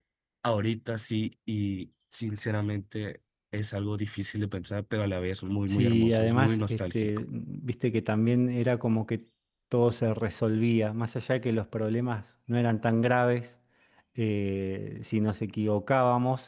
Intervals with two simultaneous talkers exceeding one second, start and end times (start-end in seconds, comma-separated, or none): 5.7-7.2